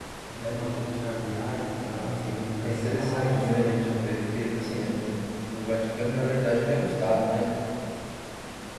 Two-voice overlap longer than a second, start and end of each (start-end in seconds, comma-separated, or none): 2.6-4.1